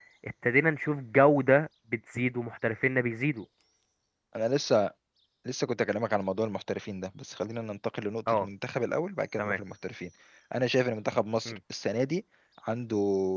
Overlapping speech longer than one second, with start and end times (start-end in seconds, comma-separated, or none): none